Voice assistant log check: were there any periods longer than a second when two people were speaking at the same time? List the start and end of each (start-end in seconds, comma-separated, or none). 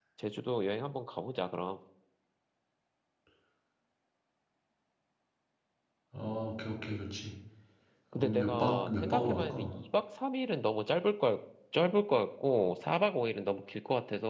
8.1-9.7